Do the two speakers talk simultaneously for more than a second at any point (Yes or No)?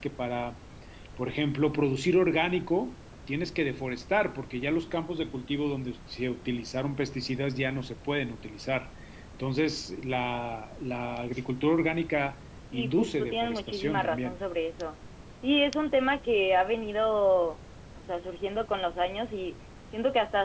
Yes